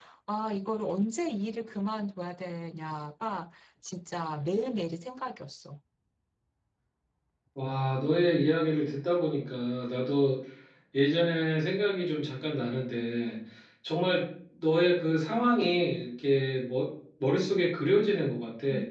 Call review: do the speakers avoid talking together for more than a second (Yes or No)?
Yes